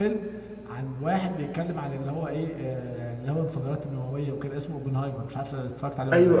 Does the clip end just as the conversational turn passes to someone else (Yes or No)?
Yes